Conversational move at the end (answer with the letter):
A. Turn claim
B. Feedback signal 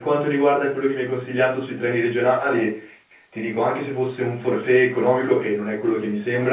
B